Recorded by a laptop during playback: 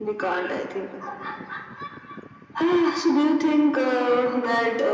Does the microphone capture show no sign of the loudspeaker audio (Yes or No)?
No